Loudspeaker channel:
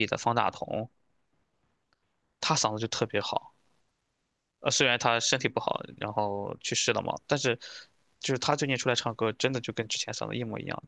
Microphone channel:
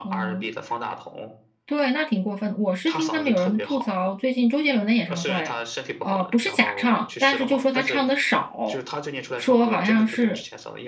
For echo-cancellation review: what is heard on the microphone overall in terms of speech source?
both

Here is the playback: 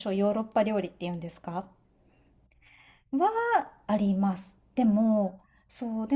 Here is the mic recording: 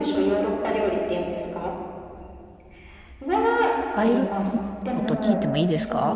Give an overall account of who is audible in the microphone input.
both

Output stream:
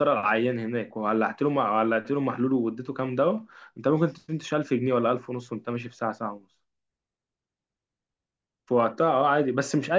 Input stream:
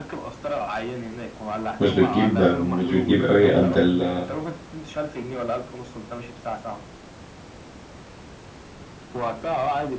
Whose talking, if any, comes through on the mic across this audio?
both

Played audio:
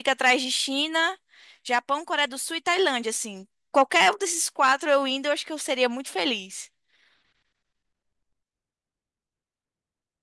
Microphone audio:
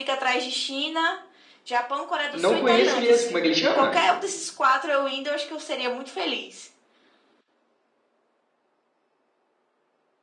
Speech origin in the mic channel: both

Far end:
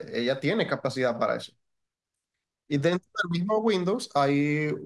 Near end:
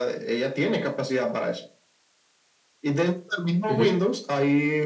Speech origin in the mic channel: both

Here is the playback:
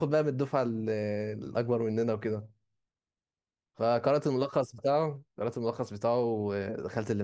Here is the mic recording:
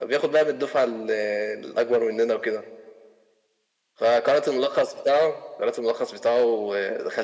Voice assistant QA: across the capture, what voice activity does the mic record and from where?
echo only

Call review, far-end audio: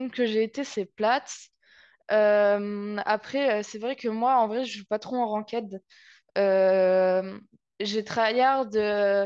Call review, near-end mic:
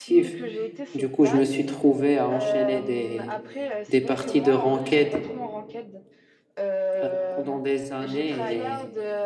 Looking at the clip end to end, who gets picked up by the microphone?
both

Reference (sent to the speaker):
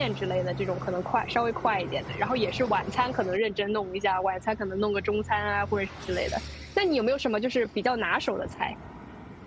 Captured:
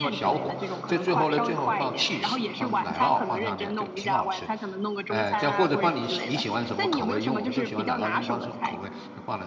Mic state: both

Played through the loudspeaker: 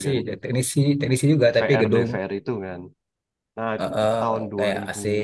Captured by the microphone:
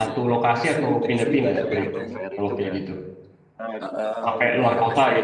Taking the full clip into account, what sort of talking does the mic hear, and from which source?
both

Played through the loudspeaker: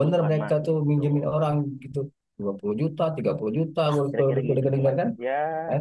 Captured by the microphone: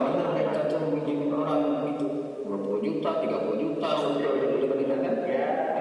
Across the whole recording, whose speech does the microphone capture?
echo only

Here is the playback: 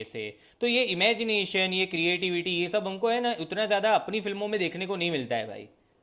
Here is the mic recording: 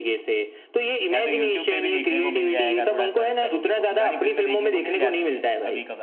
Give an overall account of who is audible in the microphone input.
both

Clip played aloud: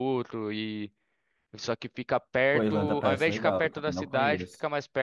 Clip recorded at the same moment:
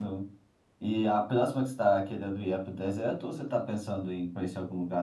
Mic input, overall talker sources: user only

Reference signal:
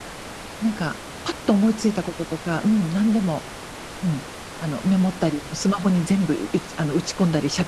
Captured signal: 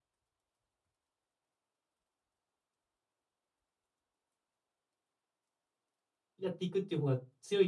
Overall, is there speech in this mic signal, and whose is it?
user only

